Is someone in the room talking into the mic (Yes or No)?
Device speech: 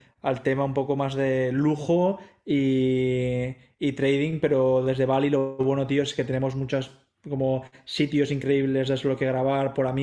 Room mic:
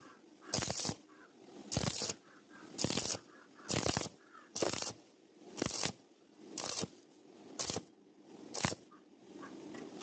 No